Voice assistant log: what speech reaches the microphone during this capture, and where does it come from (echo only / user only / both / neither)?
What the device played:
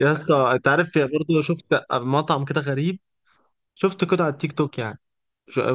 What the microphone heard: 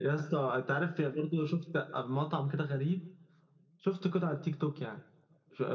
echo only